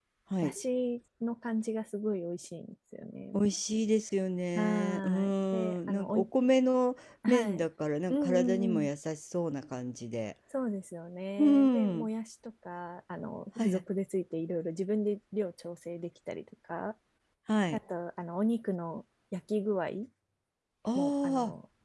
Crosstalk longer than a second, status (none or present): present